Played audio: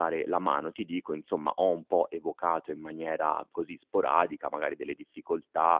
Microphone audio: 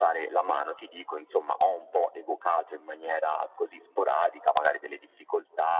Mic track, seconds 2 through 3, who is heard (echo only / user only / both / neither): echo only